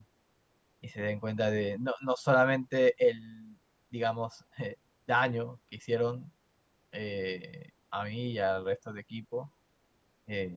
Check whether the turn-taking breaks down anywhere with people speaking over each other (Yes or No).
No